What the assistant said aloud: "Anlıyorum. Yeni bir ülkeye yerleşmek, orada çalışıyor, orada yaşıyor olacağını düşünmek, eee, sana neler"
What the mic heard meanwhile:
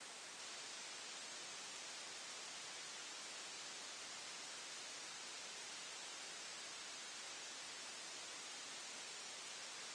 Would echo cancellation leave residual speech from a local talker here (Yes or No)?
No